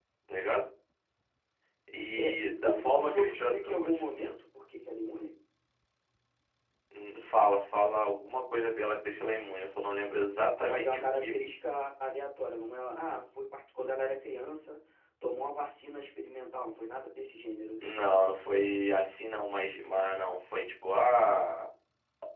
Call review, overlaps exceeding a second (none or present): present